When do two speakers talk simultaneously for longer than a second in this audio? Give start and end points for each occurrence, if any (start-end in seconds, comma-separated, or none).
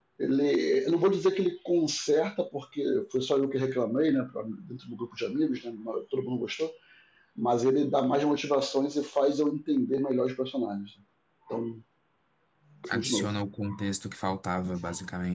none